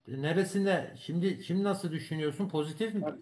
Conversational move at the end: taking over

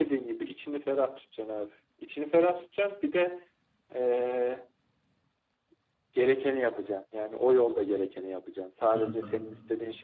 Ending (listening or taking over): listening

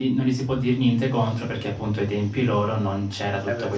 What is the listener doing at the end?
listening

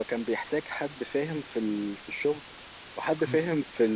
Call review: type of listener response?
listening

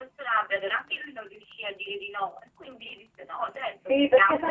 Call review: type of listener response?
taking over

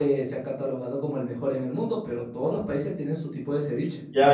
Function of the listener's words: taking over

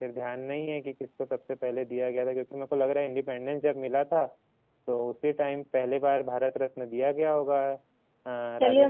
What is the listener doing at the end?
taking over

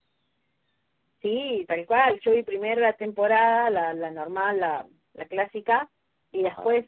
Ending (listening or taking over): listening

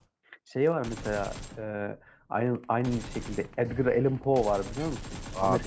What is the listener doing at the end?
taking over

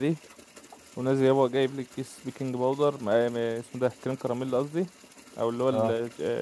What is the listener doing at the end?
listening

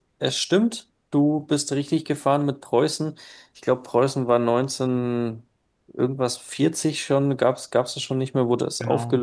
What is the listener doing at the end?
listening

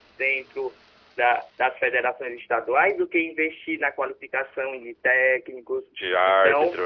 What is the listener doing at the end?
listening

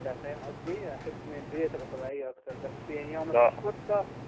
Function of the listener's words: listening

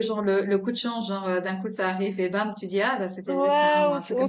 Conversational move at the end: taking over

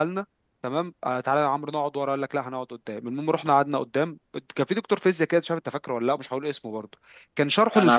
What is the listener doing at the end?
listening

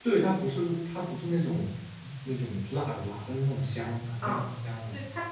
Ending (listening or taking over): taking over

